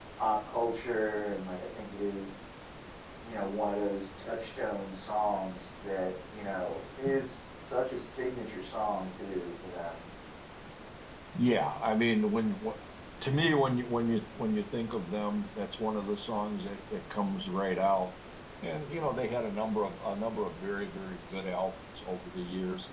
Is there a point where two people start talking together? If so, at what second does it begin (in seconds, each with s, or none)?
none